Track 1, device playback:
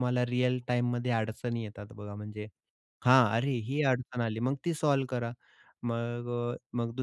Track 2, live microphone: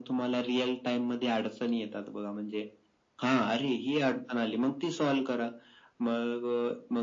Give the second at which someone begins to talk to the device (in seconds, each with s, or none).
none